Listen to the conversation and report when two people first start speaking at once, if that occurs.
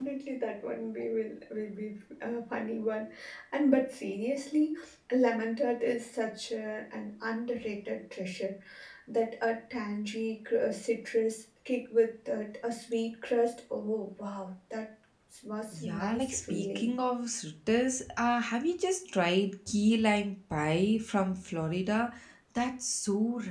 15.7 s

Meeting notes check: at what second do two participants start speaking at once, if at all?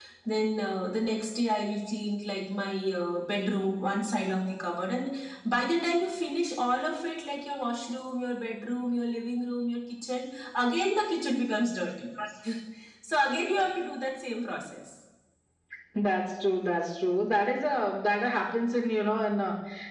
none

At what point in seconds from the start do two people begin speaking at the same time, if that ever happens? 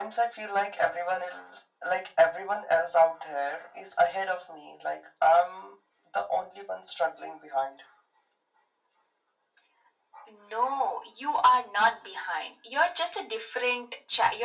none

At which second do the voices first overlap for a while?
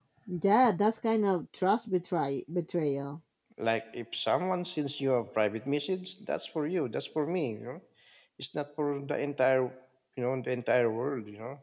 none

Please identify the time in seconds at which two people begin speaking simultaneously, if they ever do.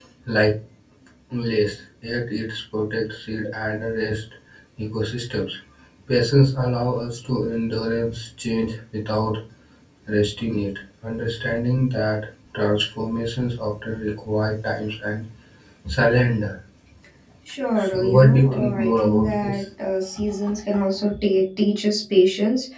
17.9 s

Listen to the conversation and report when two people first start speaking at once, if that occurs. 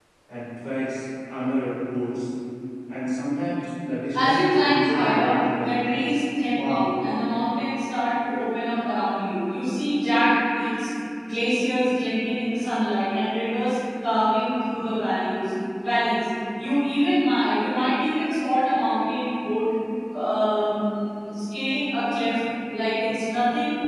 4.1 s

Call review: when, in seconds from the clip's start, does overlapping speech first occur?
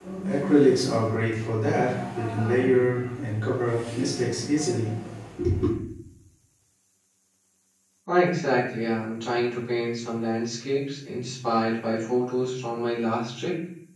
none

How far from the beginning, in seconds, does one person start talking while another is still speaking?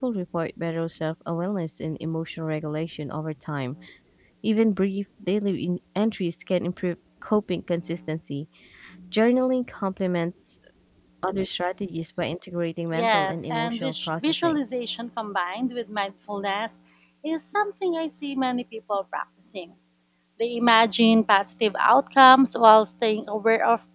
12.9 s

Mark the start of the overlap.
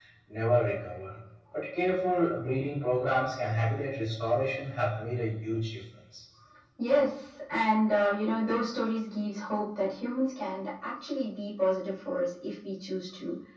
none

